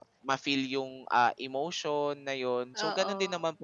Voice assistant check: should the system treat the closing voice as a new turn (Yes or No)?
No